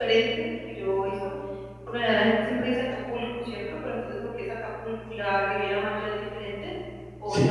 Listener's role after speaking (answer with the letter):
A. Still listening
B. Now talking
B